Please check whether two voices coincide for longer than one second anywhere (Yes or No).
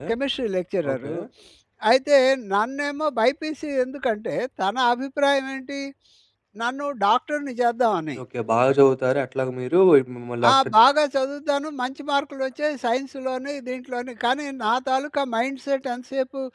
No